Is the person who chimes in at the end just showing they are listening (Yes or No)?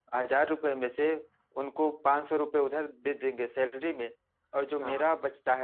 Yes